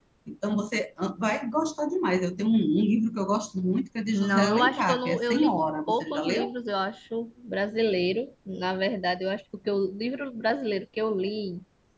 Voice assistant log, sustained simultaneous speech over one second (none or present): present